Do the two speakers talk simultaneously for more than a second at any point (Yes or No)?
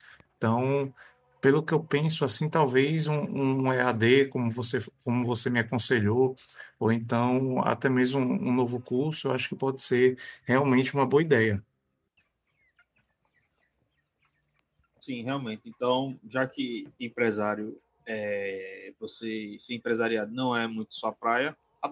No